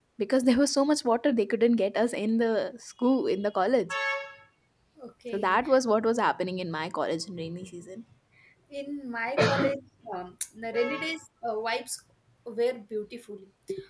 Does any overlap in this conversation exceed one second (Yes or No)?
No